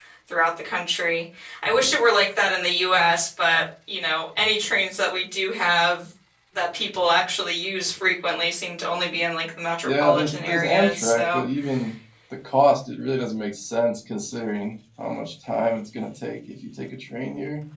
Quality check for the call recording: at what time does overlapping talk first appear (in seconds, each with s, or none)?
9.8 s